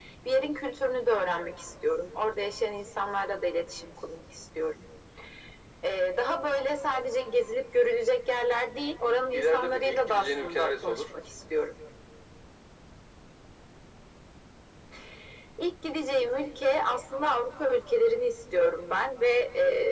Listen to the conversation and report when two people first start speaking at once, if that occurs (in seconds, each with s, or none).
9.3 s